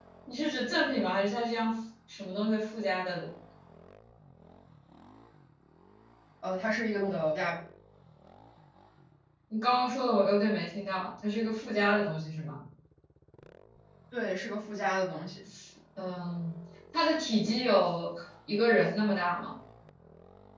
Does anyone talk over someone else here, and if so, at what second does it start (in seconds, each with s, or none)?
none